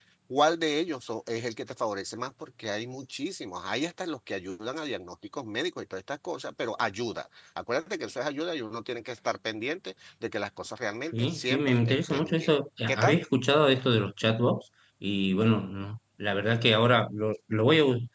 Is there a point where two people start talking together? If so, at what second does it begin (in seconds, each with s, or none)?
11.1 s